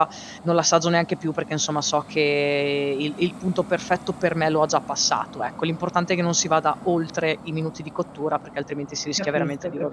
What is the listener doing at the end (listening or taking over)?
taking over